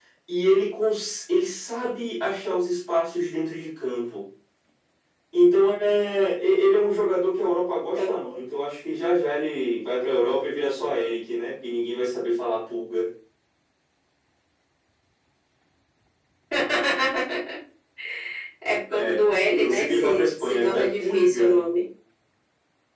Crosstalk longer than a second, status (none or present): present